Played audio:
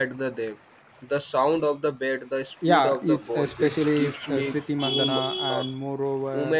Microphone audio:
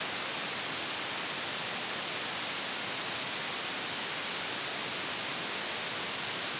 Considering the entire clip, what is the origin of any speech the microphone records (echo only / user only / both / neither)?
neither